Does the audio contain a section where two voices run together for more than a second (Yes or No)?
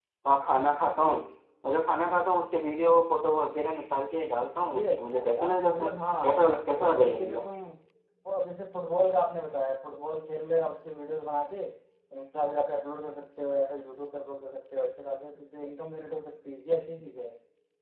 Yes